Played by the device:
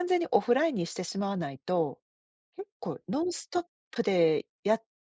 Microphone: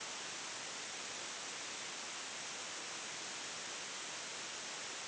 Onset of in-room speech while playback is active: none

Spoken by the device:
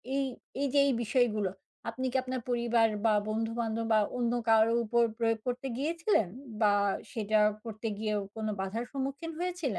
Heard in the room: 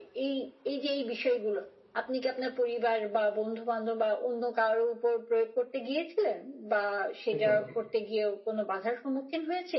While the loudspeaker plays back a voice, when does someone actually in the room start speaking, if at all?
7.4 s

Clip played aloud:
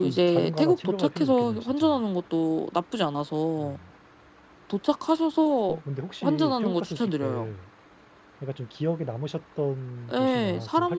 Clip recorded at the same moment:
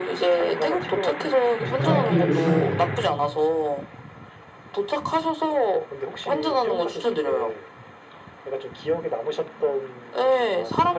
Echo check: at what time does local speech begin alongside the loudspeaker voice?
1.6 s

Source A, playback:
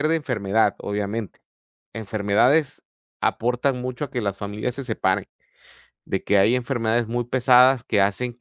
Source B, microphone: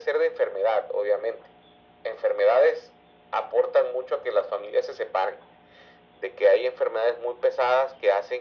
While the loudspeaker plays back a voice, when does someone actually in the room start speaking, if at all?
none

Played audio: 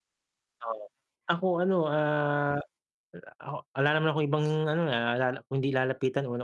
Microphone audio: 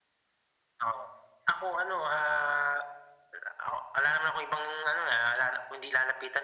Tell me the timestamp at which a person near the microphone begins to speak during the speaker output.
none

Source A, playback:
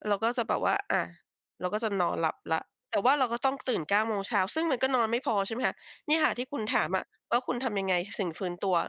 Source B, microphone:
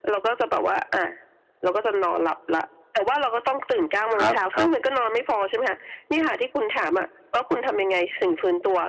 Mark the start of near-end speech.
4.1 s

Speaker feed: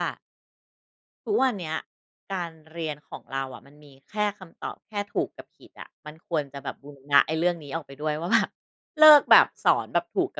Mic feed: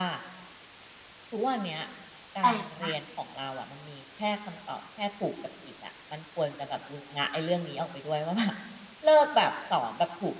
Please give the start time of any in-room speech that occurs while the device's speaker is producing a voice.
2.4 s

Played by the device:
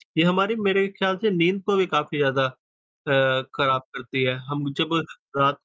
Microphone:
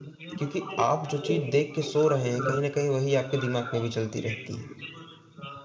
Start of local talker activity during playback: 0.4 s

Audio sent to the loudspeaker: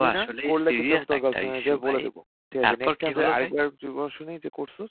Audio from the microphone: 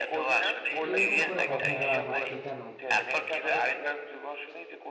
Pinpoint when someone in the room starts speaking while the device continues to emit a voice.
0.9 s

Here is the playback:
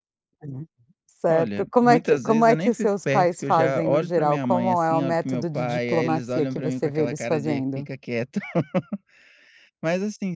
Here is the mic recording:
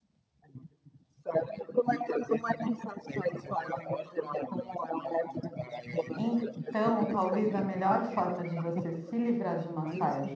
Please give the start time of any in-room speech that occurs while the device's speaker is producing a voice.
6.1 s

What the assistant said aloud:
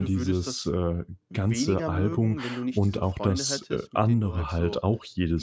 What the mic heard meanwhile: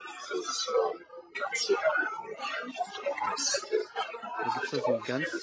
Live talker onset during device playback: 4.4 s

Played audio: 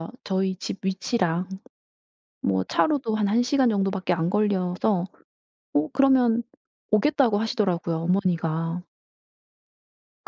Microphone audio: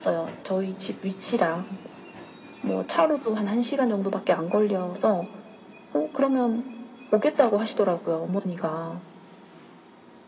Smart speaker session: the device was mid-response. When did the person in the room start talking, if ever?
none

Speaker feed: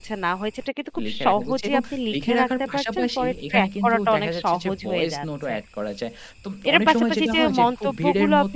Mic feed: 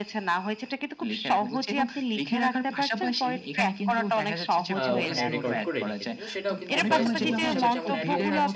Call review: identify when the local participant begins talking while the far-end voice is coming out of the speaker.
4.8 s

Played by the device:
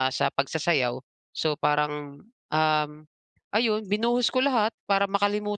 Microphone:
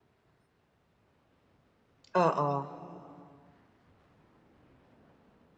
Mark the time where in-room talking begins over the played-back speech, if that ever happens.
2.1 s

